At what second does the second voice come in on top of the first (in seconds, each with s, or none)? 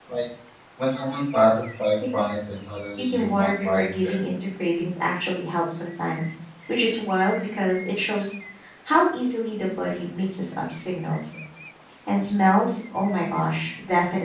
3.0 s